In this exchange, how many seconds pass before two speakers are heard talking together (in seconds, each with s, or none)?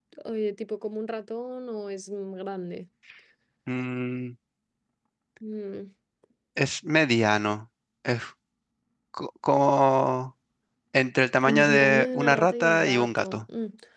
11.5 s